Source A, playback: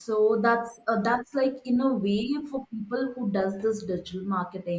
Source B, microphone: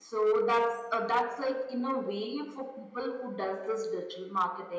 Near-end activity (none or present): none